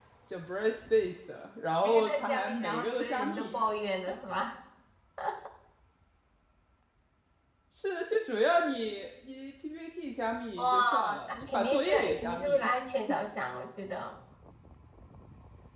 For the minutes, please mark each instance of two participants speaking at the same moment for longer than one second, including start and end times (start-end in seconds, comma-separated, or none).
1.8-3.6, 10.6-12.7